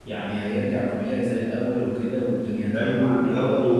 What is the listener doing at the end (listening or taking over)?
taking over